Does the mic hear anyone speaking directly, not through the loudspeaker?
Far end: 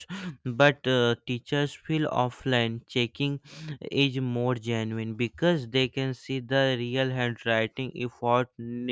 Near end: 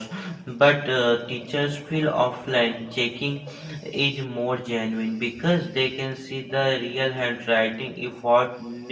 No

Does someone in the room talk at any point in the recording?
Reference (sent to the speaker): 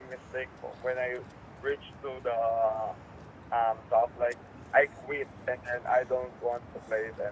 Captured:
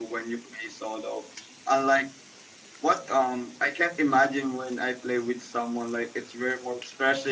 Yes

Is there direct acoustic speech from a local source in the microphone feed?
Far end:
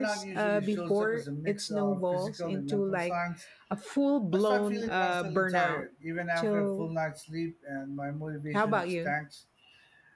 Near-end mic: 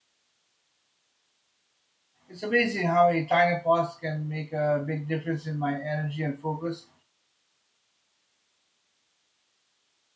Yes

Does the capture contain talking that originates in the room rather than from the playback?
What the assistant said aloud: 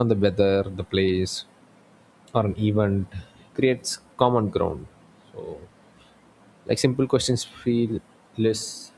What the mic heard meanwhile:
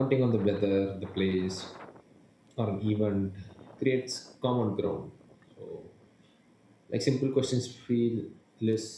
No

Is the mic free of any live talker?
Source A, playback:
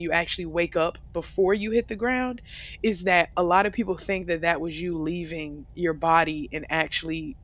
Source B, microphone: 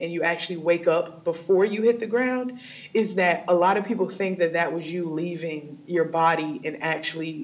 Yes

